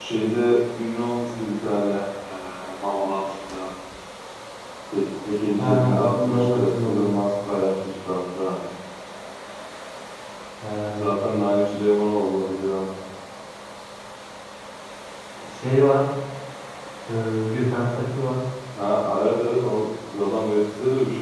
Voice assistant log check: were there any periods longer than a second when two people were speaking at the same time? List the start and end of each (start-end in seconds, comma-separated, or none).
5.6-7.1